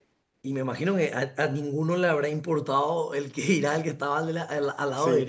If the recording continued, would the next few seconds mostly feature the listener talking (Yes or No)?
No